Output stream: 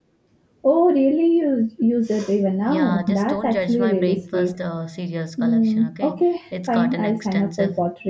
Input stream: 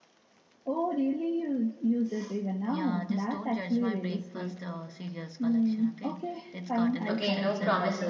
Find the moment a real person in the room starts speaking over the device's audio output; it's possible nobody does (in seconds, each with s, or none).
7.1 s